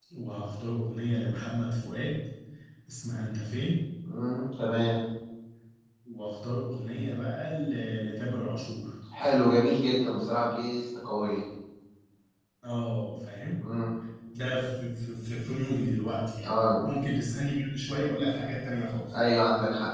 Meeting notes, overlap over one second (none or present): none